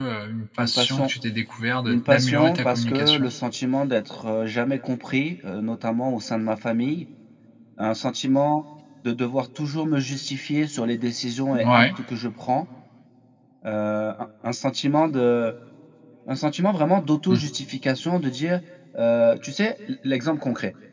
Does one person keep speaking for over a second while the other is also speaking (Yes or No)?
Yes